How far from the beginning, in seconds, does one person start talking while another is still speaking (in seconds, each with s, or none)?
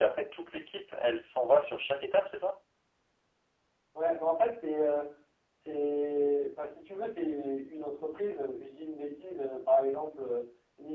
none